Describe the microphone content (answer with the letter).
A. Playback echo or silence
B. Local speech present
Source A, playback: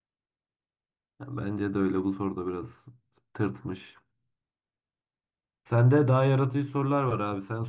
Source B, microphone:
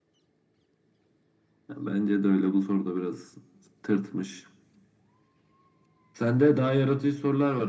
A